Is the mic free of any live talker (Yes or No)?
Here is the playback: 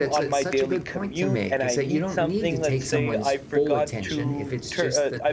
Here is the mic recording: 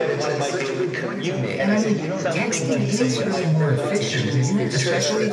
No